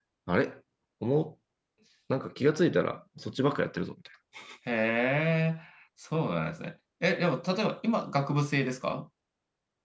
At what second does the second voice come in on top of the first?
none

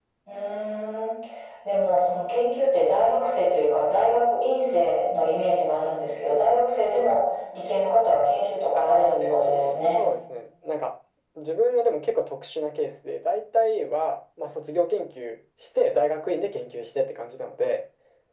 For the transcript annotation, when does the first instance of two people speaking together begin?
8.8 s

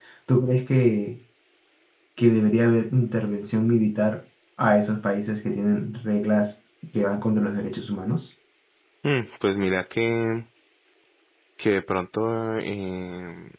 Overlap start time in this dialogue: none

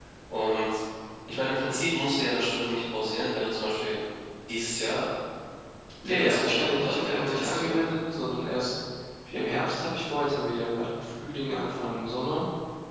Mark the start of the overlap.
6.1 s

